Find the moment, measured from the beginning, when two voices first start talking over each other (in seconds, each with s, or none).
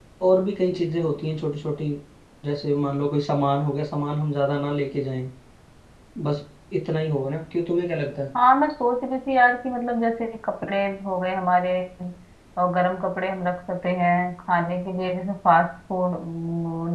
none